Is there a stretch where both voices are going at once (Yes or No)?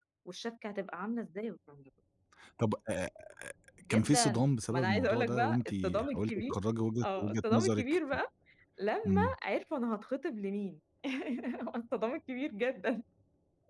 Yes